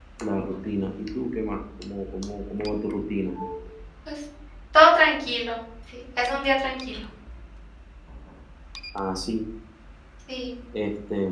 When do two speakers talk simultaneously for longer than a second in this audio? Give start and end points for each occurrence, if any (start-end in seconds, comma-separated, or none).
none